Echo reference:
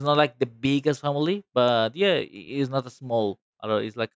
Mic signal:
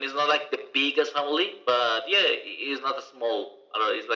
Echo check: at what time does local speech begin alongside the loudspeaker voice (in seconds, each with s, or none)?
none